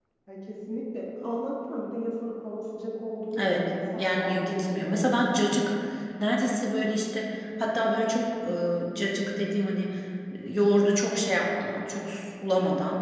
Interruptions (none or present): present